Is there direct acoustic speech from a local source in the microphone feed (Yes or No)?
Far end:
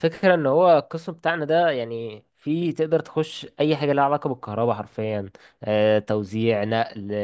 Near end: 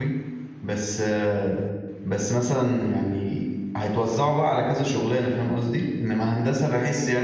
Yes